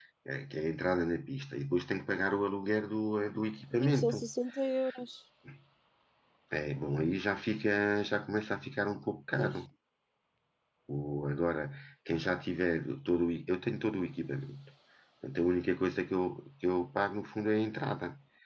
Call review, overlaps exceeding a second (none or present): none